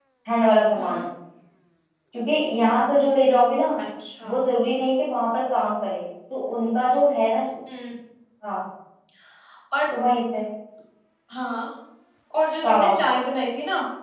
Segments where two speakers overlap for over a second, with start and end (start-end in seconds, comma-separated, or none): none